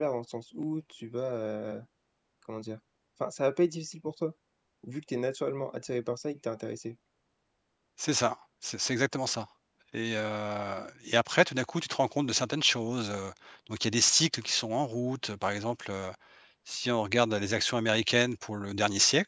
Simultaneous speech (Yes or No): No